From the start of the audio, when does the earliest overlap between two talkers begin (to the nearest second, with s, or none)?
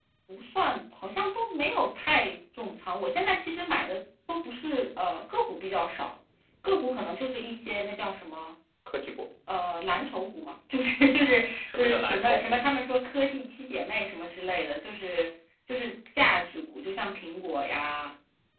11 s